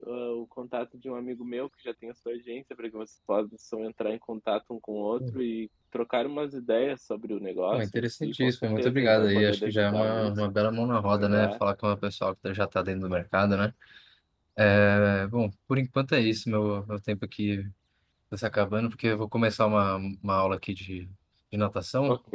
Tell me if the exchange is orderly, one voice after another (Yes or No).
No